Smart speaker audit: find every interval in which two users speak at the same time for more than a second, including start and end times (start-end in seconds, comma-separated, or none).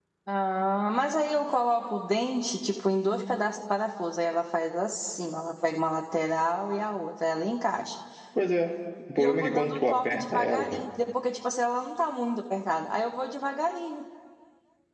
9.2-10.8